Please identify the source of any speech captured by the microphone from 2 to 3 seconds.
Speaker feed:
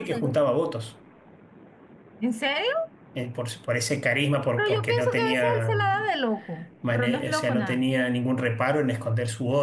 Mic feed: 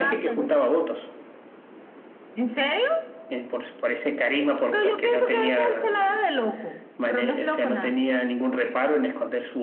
echo only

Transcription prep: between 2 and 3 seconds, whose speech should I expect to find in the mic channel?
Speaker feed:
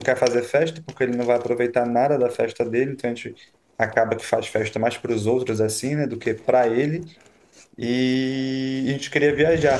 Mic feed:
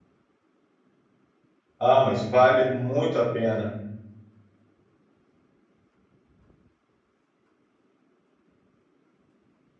user only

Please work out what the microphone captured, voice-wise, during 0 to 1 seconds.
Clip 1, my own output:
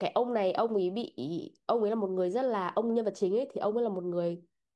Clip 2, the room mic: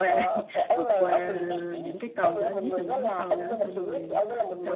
both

